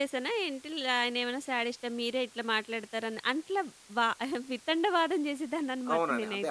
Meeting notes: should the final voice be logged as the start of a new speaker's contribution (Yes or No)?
Yes